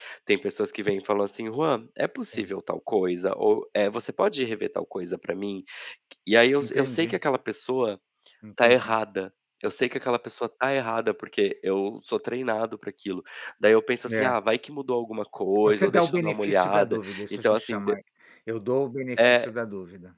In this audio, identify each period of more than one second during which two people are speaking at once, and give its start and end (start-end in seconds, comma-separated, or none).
15.6-18.0